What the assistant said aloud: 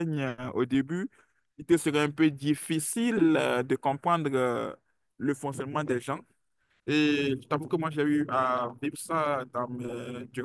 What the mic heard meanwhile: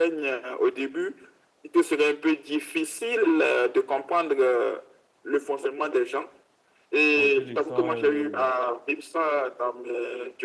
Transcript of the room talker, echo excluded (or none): en te laissant euh,